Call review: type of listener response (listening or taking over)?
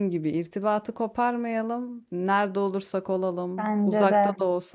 listening